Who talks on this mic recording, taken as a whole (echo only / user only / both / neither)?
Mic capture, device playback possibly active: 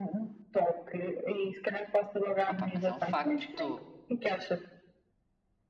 both